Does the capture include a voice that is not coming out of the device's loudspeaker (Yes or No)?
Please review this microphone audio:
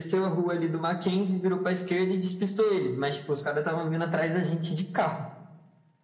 No